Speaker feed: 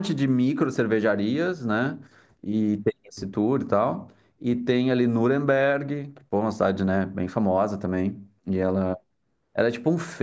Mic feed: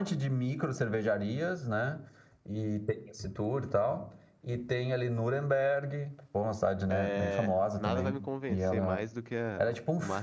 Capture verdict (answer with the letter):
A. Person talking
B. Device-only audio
A